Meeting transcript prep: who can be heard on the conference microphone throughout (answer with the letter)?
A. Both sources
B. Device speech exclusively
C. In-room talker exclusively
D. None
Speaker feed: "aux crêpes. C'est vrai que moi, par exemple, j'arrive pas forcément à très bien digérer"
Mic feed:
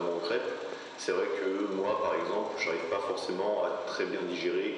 B